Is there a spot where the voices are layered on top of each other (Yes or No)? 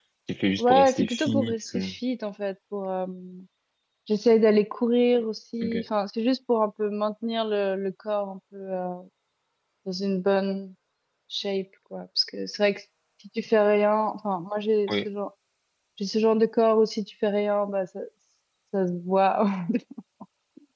Yes